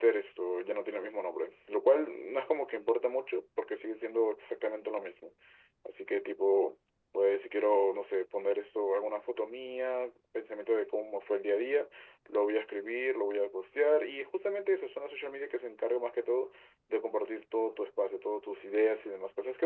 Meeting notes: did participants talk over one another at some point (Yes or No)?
No